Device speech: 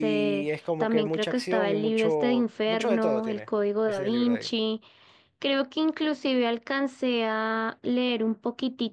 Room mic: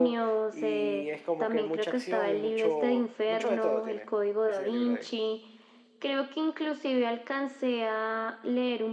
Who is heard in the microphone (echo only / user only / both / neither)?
echo only